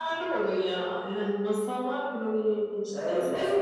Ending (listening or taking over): taking over